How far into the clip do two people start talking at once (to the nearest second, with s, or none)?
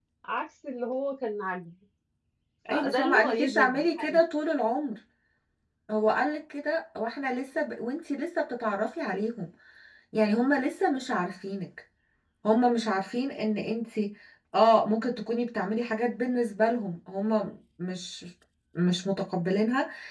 3 s